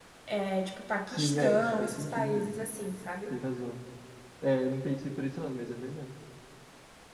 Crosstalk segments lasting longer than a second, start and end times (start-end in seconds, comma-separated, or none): 1.1-2.5